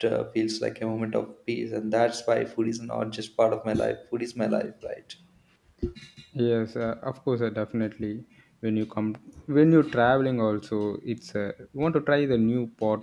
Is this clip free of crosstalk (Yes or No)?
Yes